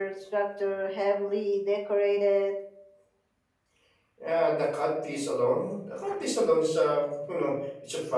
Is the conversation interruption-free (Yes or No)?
Yes